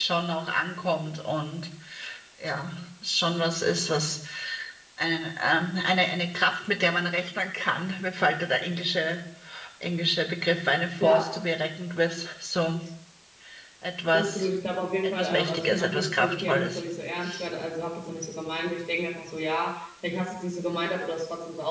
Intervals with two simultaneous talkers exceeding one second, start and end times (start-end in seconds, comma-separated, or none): 15.0-16.8